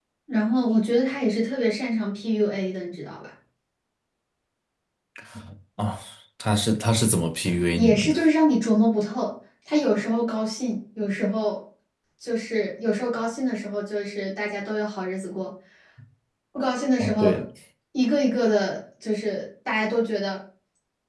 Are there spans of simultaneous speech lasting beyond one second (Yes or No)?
No